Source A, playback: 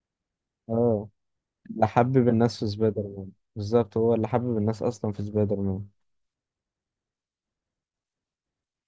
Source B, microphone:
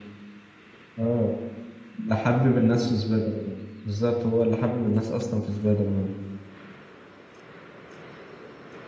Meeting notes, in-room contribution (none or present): none